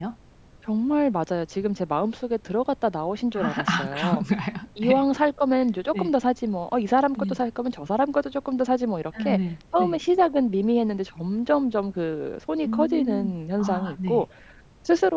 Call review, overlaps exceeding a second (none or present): present